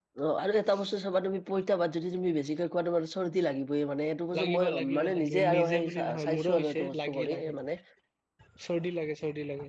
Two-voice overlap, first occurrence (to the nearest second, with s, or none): 4 s